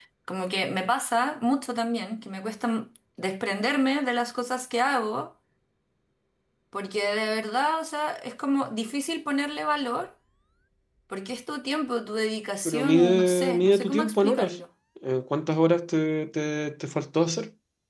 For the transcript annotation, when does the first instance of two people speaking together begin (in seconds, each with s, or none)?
12.7 s